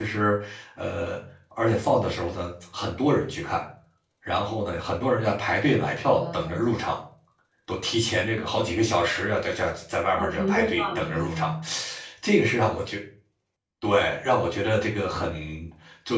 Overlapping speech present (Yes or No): Yes